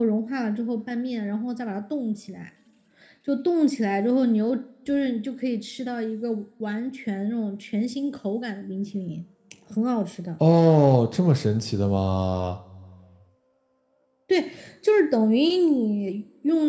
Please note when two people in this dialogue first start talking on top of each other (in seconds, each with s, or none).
none